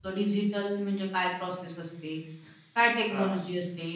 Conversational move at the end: listening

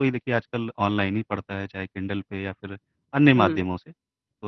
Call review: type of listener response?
listening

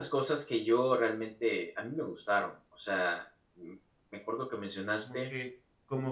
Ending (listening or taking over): taking over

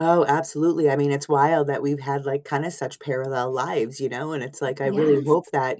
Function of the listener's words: listening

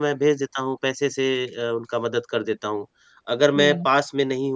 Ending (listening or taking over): listening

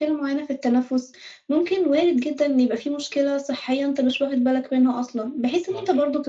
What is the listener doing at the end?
listening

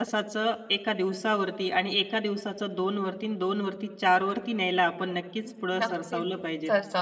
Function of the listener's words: taking over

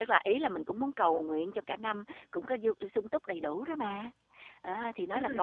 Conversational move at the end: taking over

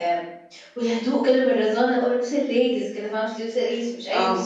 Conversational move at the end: taking over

